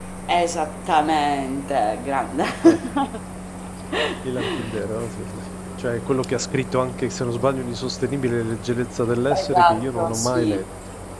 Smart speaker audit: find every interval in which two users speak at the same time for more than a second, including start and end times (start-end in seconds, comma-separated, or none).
9.4-10.6